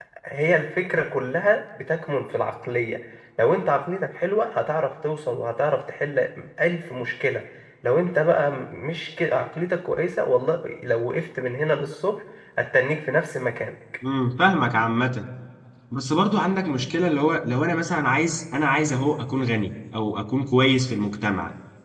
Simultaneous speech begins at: none

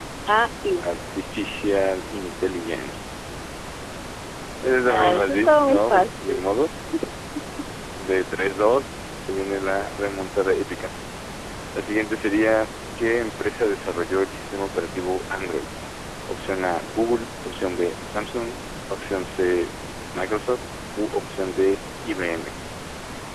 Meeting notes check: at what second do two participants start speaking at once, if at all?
4.9 s

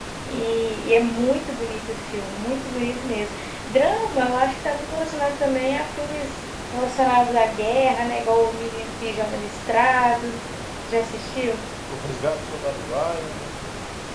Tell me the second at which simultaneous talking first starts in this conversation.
none

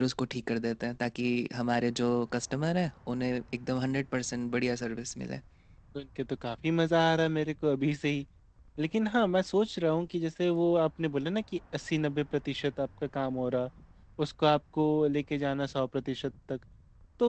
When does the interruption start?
none

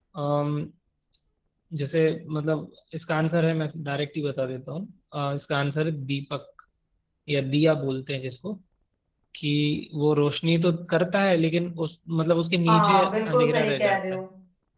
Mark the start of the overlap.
12.7 s

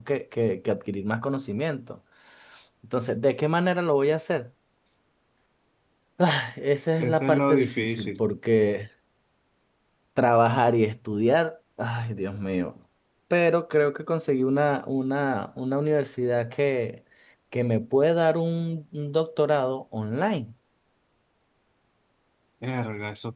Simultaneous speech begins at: 7.0 s

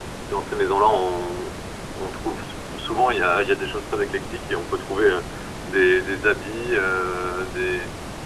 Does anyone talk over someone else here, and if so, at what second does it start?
none

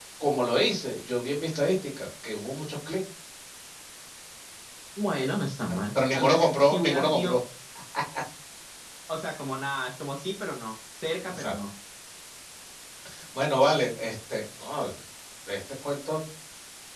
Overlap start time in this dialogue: 5.6 s

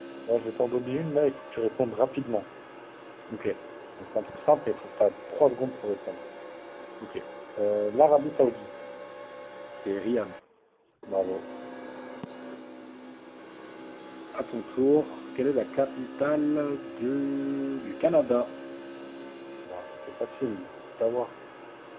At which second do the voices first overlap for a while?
none

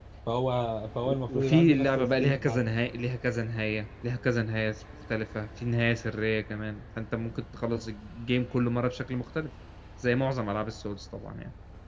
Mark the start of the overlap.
1.1 s

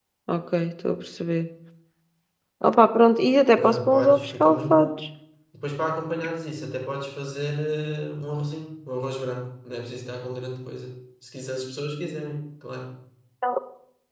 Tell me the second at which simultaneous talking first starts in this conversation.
3.5 s

